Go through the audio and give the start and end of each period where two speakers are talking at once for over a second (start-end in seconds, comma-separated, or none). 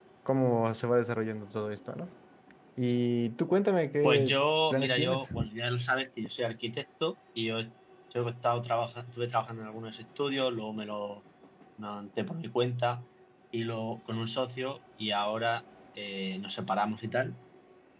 4.0-5.3